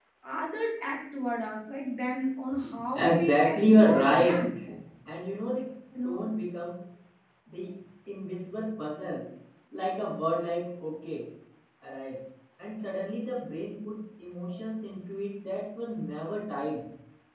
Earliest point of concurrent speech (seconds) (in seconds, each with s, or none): 3.0 s